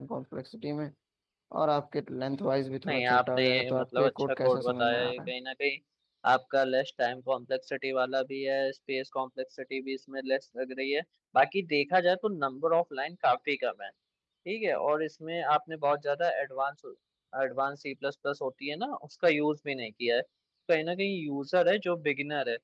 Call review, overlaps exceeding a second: present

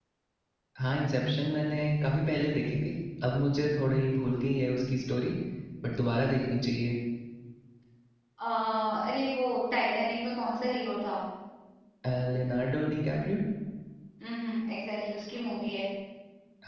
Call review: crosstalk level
none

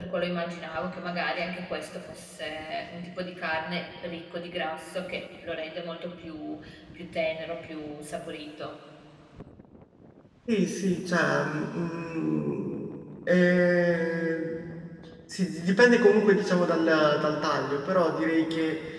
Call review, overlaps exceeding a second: none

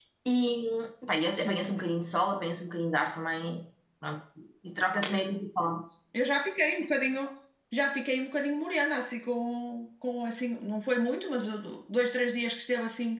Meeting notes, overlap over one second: none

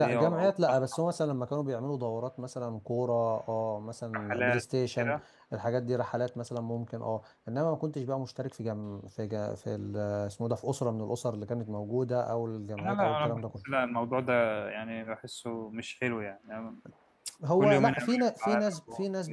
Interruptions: present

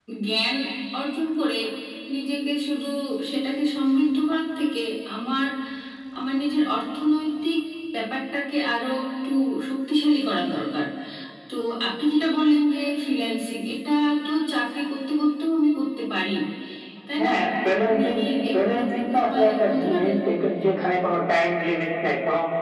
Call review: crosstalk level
present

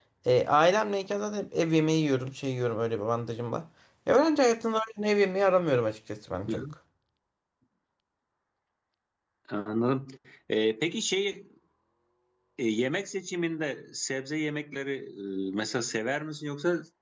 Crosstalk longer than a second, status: none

